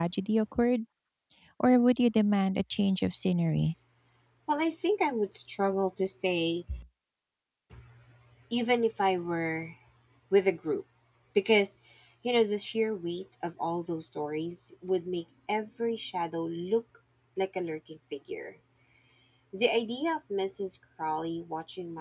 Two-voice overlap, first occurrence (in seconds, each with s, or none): none